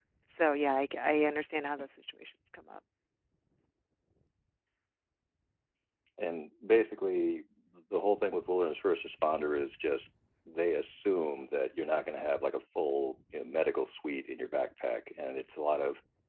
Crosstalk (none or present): none